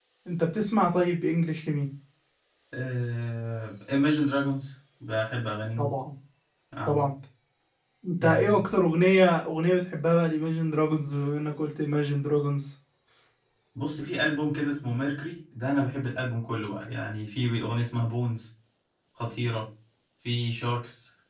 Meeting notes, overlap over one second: none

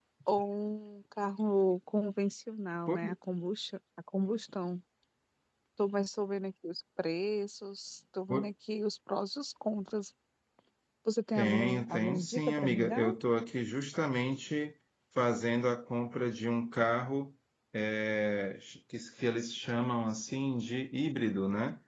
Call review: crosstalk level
present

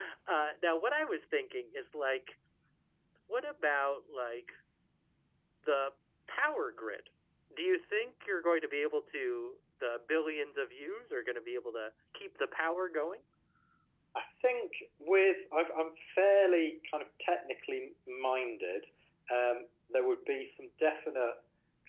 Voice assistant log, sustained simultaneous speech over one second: none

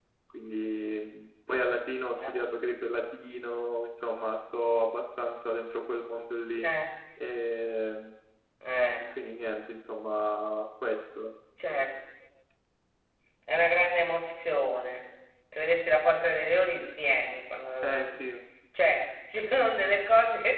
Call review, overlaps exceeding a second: none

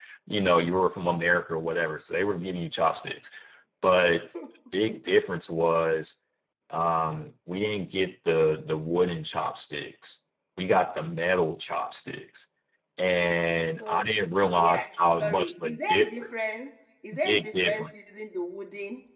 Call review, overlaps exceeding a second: present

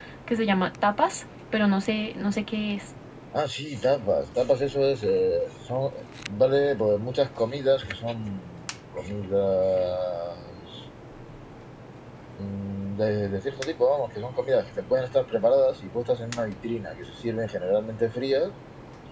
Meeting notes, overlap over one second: none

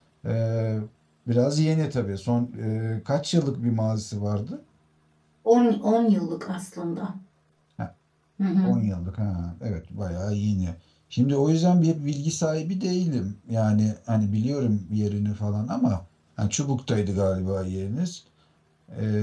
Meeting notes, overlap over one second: none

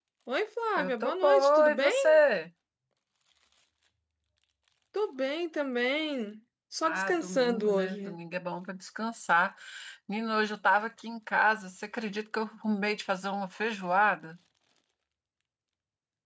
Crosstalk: present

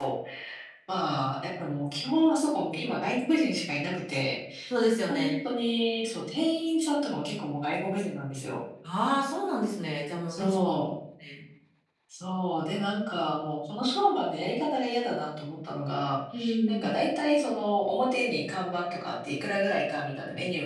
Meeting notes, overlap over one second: none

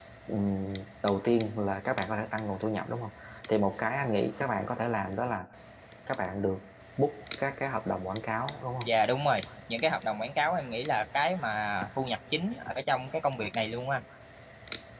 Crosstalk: none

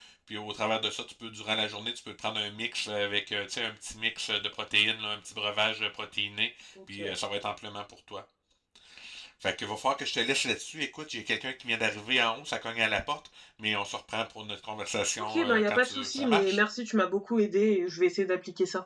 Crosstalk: present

